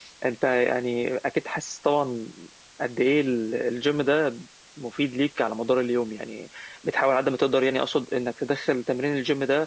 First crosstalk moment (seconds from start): none

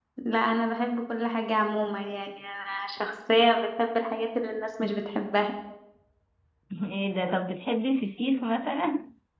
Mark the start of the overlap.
none

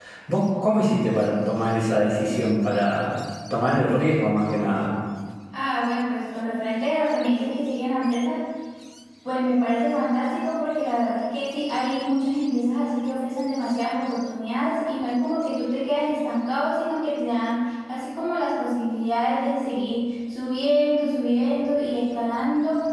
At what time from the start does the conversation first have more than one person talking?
none

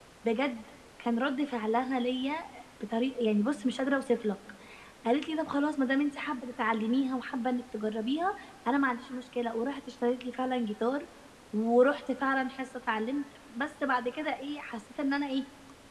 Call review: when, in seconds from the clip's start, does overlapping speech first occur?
none

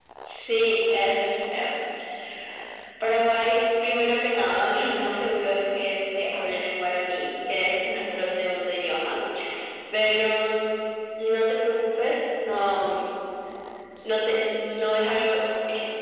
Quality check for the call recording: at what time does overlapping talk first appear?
none

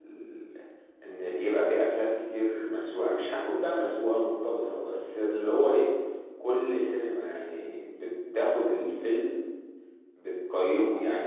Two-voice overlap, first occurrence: none

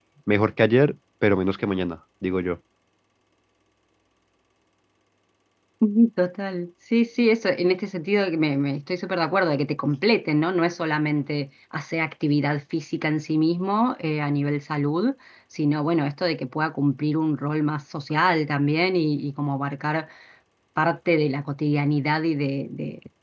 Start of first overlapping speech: none

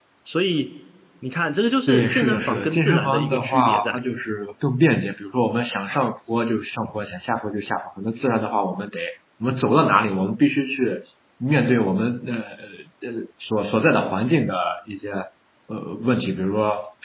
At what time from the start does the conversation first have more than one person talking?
1.9 s

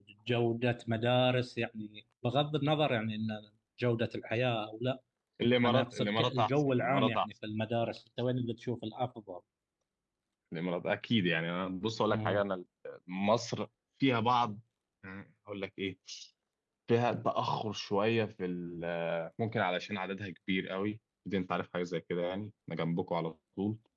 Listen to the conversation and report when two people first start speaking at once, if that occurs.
5.6 s

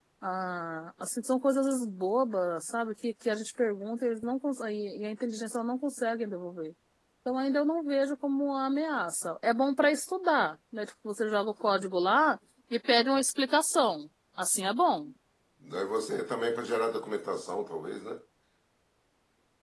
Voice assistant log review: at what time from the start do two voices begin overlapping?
none

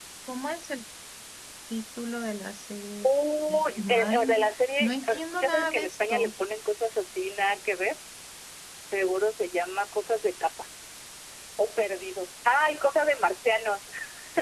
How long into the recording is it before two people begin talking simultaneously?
3.5 s

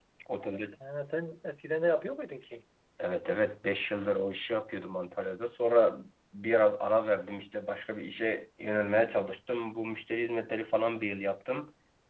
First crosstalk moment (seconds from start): none

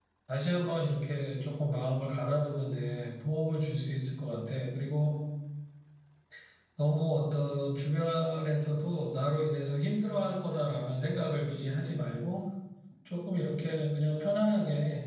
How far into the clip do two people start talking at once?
none

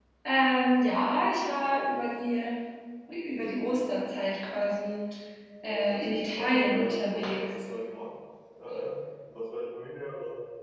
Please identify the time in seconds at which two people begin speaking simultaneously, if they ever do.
5.6 s

